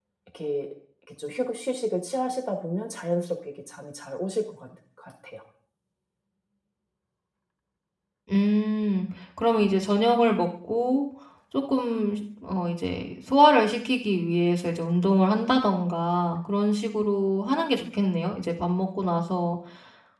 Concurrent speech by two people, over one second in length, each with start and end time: none

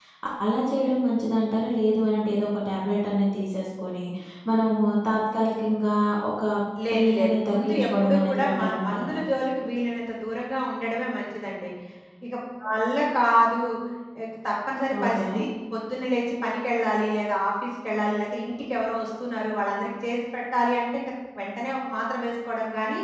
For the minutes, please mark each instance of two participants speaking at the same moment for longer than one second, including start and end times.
6.9-9.1

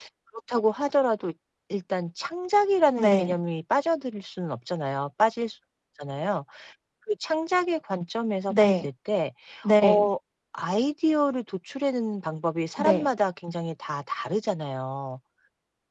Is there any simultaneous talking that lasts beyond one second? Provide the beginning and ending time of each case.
none

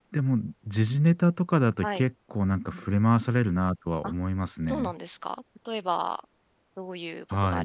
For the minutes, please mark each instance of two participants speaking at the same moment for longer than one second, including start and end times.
none

